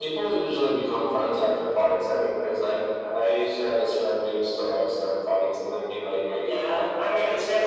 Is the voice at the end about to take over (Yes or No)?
Yes